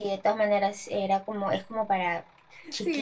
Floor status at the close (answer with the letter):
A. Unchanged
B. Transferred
B